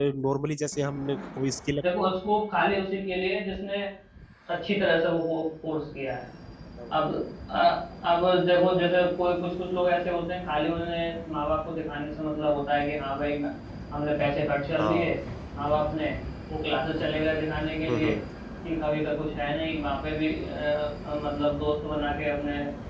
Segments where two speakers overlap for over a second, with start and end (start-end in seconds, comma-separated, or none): none